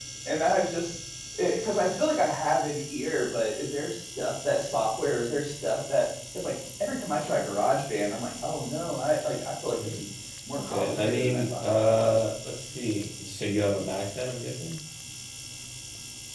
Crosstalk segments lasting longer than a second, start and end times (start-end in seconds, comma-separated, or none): 10.6-12.2